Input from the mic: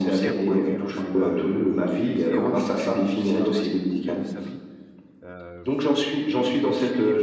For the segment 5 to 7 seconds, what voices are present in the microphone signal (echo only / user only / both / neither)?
both